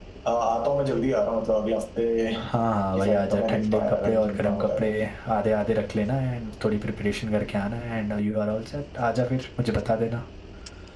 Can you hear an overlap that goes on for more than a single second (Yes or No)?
Yes